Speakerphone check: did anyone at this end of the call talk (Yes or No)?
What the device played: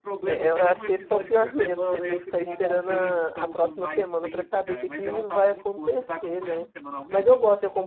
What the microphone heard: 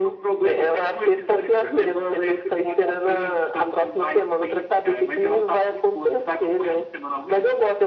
No